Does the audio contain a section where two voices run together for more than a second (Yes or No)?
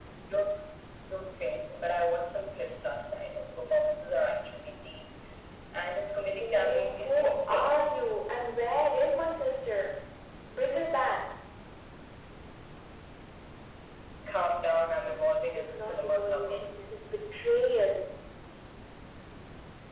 Yes